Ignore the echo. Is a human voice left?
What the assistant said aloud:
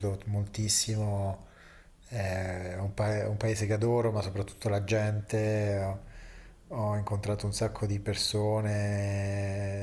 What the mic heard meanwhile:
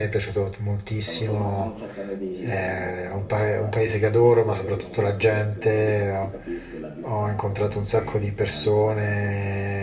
Yes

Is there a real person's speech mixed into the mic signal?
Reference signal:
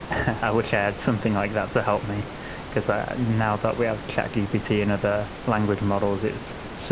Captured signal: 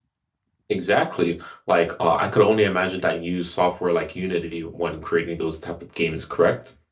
Yes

